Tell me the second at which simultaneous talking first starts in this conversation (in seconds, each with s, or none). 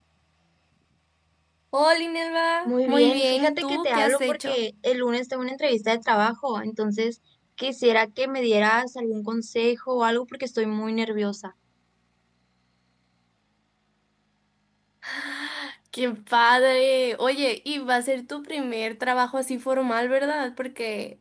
2.6 s